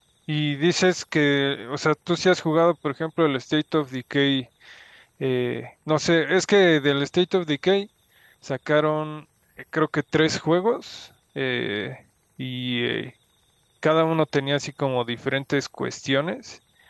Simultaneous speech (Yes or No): No